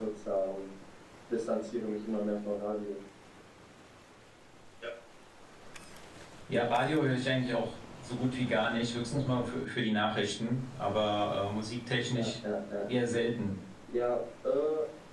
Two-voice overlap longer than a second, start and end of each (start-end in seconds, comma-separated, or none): none